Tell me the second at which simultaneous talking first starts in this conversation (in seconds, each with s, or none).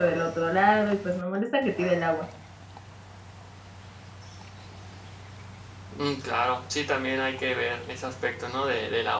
none